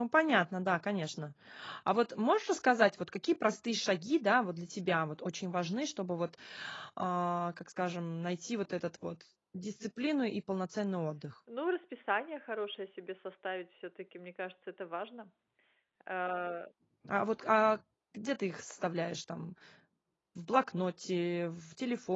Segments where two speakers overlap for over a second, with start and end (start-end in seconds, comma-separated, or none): none